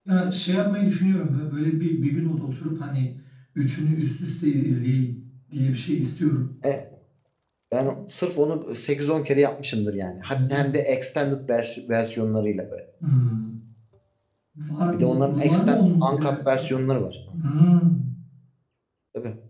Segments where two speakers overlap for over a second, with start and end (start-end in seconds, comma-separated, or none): 14.9-16.7